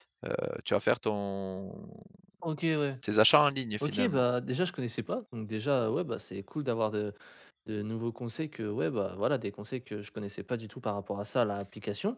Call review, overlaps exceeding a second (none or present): none